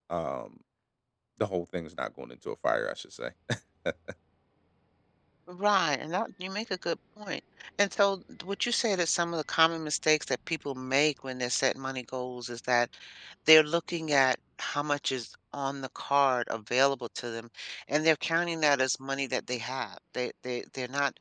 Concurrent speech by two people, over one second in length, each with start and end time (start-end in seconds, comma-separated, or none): none